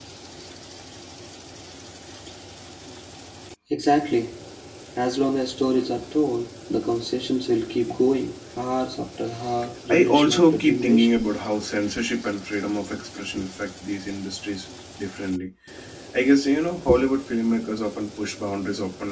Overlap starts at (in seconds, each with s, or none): 9.9 s